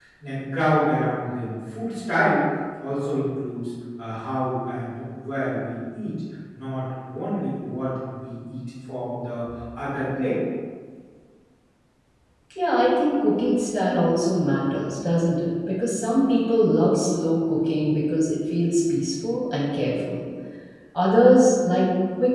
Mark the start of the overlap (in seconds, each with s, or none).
none